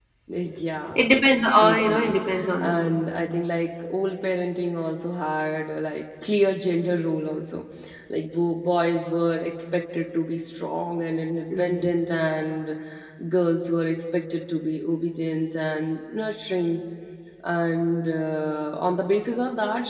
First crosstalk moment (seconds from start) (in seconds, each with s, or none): 1.6 s